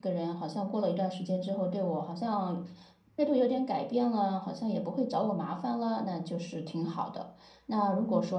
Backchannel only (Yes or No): Yes